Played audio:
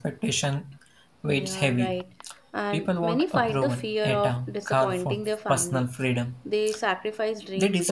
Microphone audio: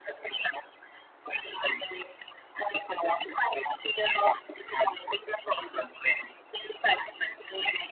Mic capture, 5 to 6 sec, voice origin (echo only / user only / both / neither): echo only